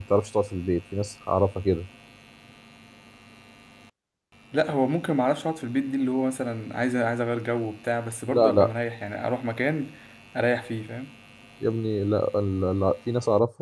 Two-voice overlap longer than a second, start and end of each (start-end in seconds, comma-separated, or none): none